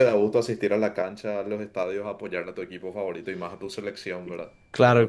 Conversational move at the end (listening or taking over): taking over